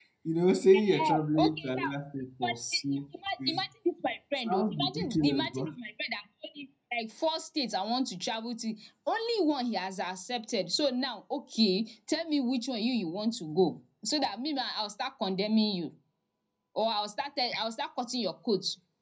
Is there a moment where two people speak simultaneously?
Yes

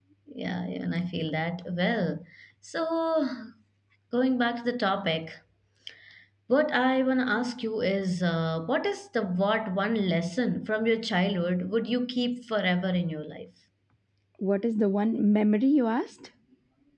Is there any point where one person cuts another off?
No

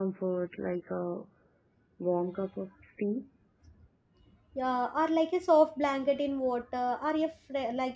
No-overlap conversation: Yes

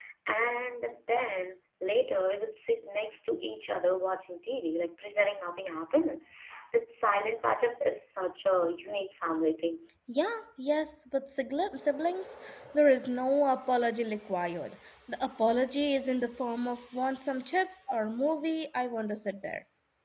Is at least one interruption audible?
No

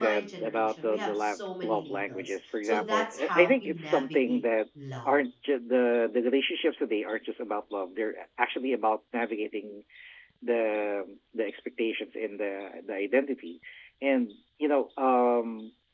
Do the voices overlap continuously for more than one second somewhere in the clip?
Yes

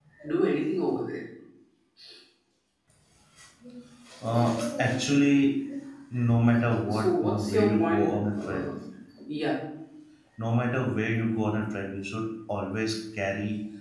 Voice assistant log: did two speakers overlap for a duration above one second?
Yes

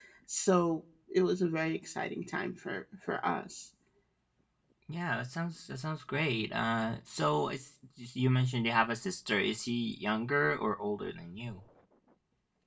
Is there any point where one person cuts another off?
No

